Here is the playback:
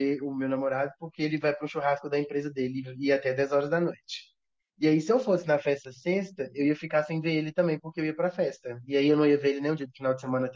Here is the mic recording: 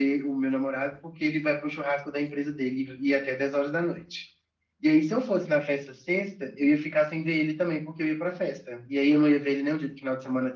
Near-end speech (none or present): none